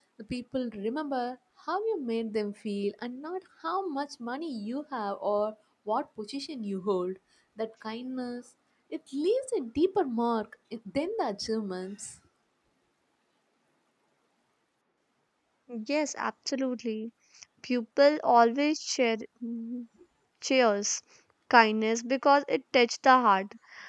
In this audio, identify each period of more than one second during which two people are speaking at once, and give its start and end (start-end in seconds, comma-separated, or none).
none